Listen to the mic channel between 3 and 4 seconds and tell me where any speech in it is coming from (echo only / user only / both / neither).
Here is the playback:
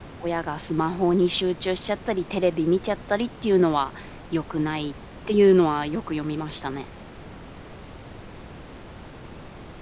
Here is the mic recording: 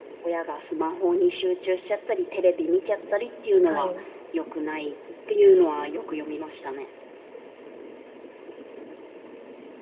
both